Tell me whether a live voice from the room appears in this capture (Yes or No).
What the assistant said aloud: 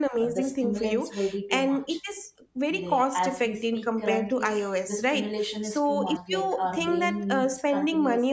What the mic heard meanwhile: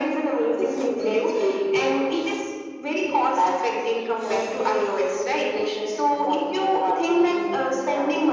No